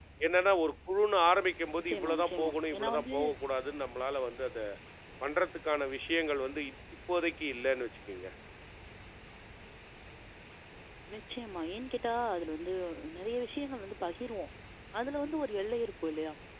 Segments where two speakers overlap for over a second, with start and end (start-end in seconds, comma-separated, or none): 1.8-3.1